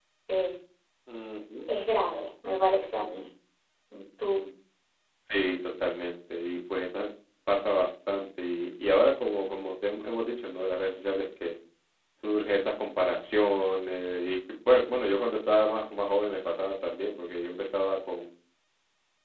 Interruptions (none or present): none